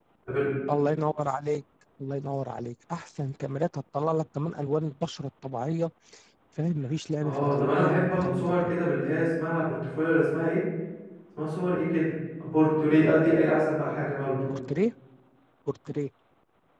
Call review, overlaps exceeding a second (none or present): present